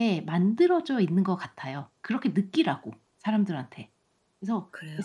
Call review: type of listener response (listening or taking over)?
listening